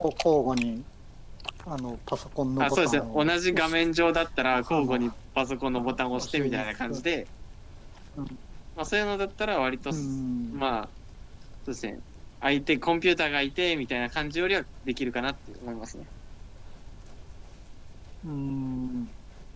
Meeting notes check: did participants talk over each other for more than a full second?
Yes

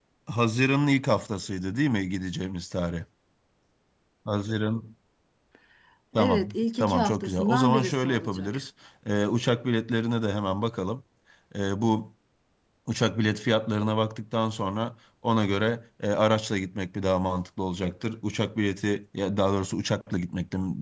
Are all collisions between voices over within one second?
No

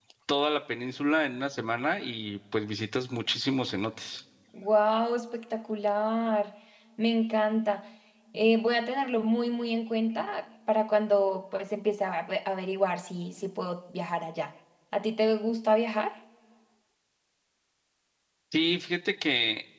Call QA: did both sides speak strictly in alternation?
Yes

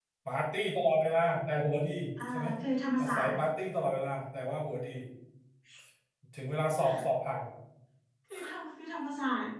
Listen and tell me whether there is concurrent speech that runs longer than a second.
No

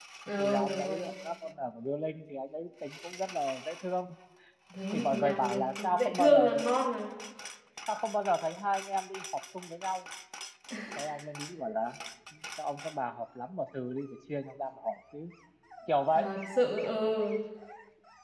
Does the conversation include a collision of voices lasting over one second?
Yes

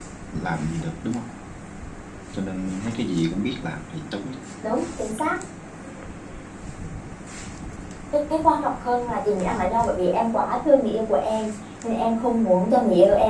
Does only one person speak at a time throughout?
Yes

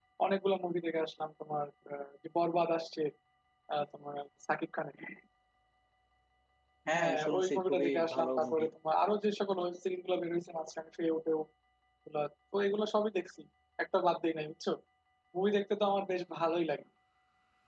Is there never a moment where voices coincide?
No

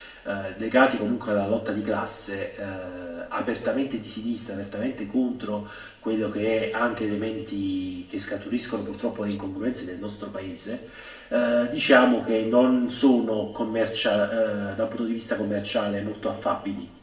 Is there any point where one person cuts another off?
No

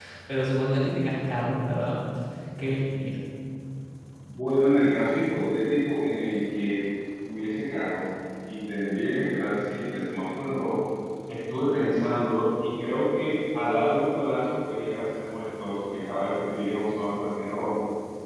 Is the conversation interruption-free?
Yes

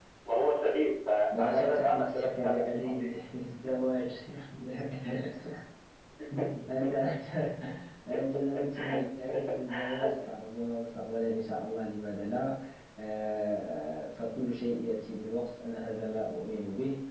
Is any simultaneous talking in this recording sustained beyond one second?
Yes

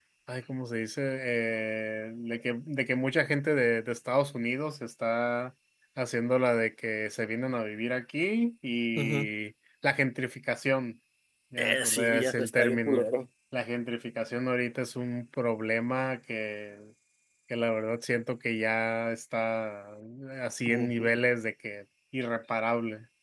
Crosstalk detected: Yes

